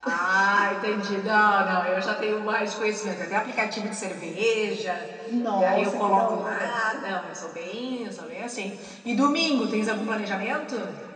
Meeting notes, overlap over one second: present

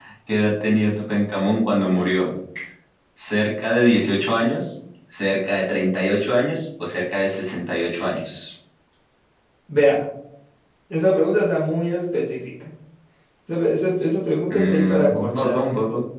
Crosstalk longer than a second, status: present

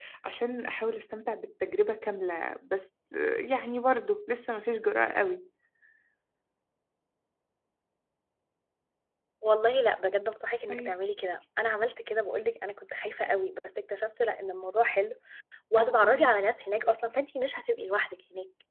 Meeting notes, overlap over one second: none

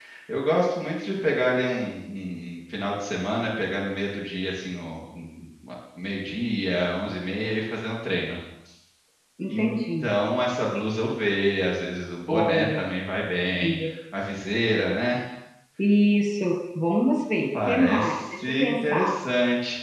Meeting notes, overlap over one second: present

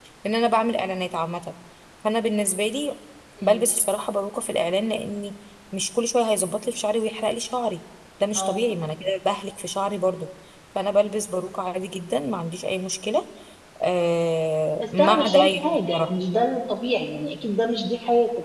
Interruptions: present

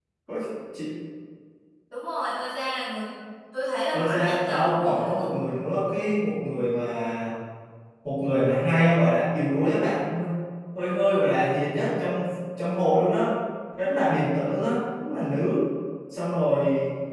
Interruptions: present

